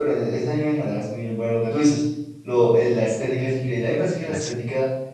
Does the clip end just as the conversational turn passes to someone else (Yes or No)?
No